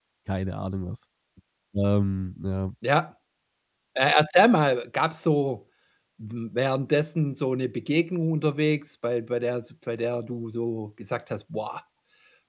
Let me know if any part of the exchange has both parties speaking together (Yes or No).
No